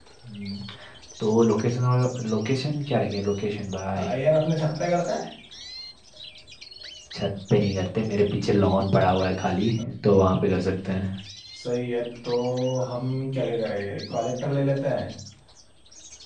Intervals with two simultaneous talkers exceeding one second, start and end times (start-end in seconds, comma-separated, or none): none